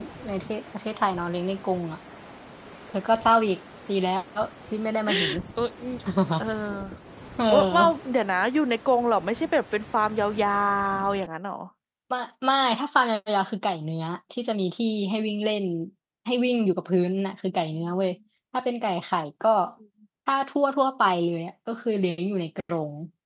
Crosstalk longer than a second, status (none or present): none